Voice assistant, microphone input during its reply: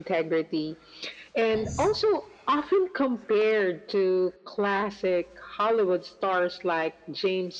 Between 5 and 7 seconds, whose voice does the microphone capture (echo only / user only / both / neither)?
echo only